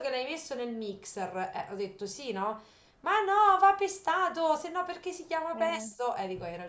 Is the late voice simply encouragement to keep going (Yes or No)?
Yes